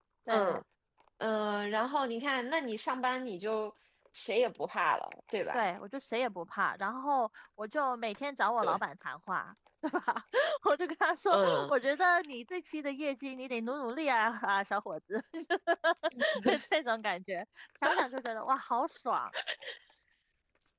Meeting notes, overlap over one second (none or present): none